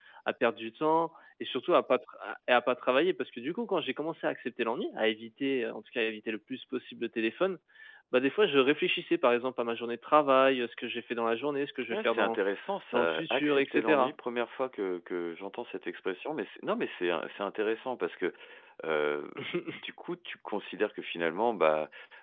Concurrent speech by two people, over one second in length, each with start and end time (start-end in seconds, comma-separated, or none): 12.9-14.1